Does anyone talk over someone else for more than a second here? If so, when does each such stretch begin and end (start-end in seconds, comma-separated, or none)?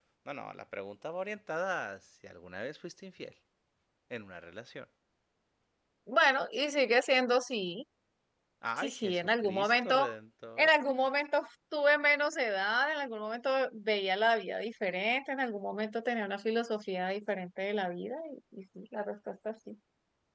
8.8-10.1